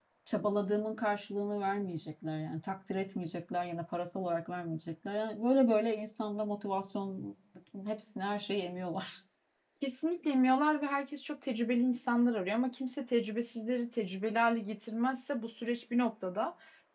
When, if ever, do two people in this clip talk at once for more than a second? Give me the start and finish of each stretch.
none

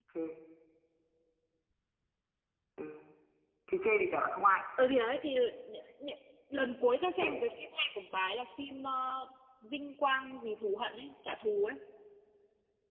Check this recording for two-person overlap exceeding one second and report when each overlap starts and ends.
none

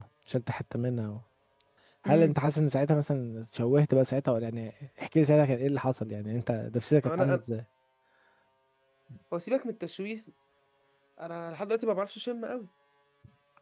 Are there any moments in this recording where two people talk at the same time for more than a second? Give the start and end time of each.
none

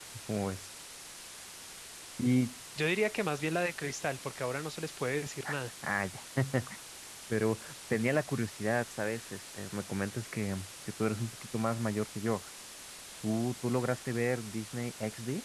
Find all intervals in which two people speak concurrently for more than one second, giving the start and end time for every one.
none

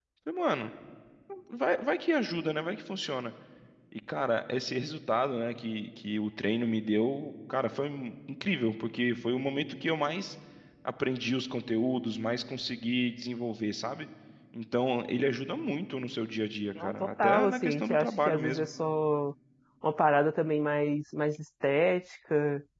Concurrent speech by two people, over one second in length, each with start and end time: 16.8-18.7

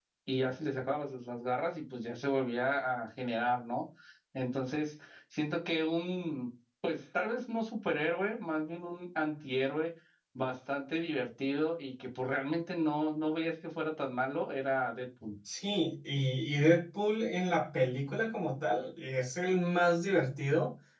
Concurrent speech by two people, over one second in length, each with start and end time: none

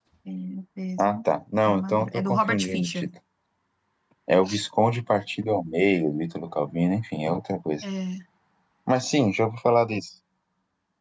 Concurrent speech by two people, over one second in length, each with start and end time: 1.6-3.1

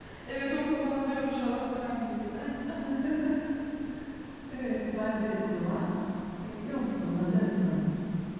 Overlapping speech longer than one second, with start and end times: none

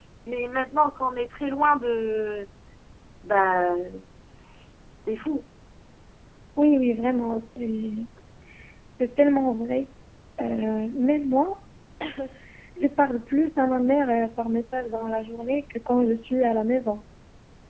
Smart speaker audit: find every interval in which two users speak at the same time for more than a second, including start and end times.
none

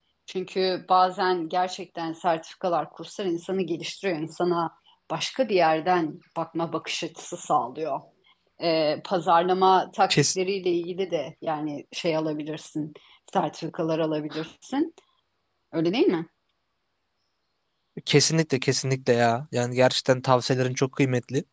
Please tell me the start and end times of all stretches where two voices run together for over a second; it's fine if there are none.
none

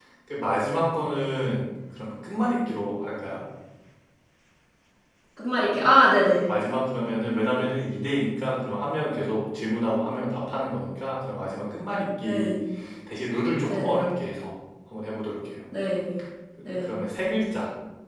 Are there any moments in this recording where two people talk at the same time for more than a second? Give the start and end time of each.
none

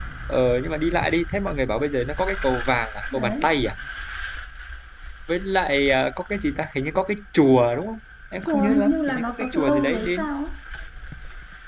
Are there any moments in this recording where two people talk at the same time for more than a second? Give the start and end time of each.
8.5-10.3

